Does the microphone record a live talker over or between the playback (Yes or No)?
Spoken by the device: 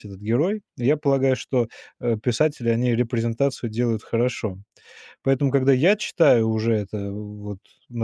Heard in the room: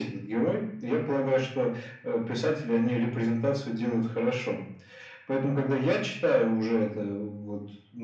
No